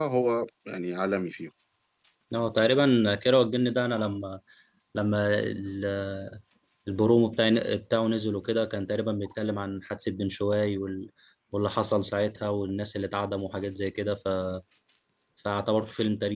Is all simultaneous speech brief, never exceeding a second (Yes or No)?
Yes